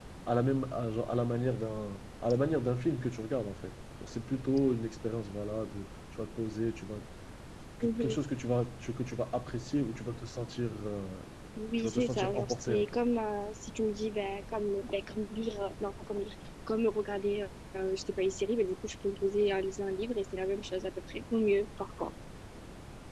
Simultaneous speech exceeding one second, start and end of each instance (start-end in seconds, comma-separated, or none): 11.7-13.0